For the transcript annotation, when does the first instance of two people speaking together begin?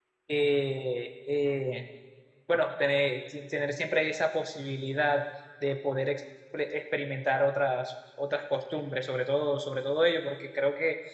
none

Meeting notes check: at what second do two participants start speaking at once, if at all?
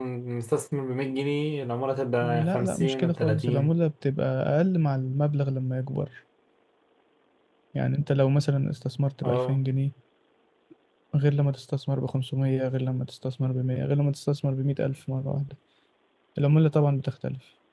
2.2 s

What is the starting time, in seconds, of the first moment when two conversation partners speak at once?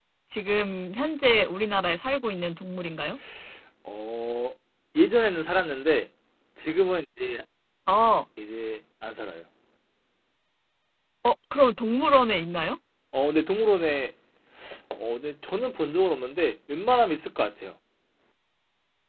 none

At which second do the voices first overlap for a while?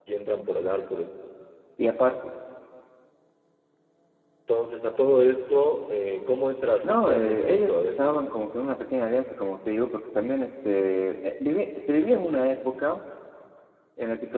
6.8 s

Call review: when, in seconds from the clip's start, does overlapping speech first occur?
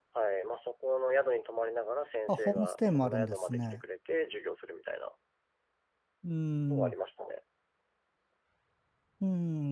2.3 s

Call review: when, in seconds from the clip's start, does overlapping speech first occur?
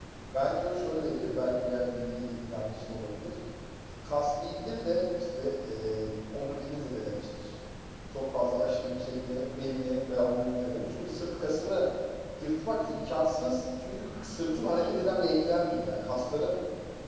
none

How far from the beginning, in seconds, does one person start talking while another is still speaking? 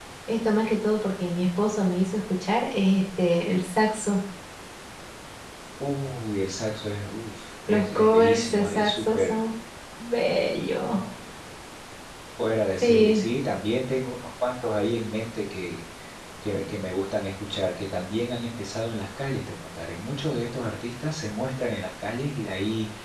7.7 s

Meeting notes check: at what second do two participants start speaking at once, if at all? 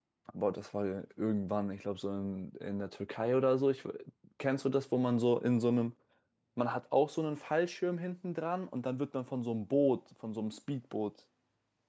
none

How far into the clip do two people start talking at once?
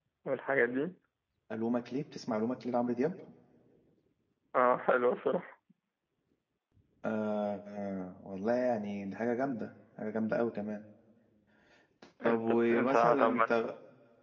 12.2 s

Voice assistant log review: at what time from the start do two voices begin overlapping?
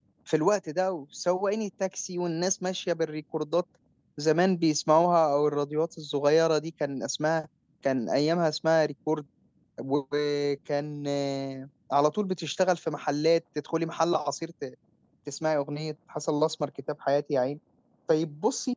none

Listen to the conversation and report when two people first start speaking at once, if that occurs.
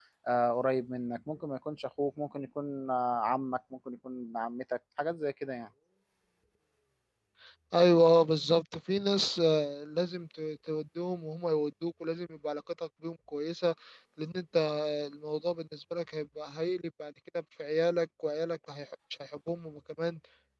none

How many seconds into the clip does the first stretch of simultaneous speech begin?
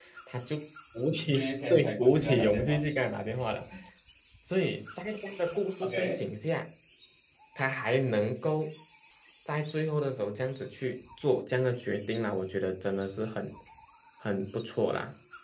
1.3 s

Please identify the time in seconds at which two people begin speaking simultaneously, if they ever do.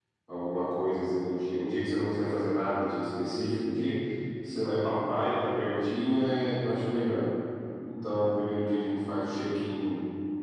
none

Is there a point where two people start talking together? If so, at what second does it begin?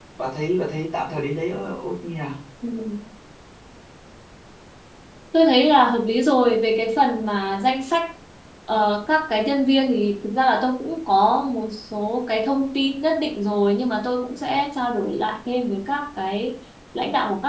none

